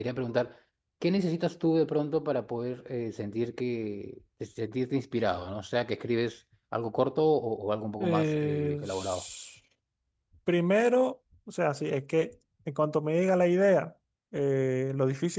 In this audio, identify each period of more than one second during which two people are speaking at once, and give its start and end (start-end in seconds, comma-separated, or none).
8.0-9.2